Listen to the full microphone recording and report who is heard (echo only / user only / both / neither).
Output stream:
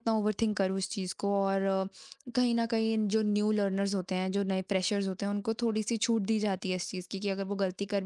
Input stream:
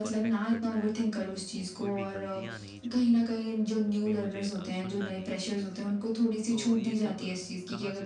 both